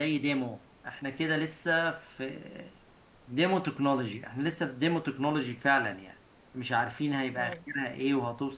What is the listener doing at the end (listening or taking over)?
listening